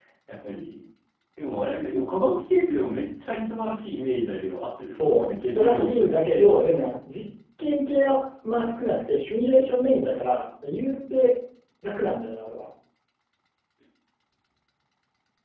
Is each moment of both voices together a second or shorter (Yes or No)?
No